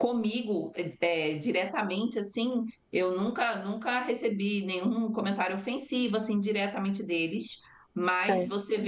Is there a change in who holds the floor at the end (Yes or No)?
No